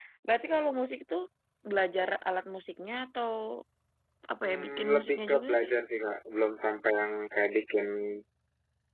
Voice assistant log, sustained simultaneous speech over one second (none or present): present